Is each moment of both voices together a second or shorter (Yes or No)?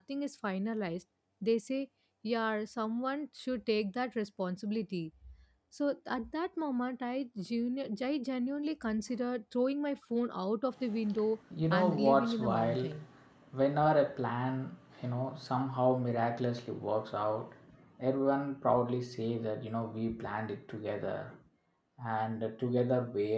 No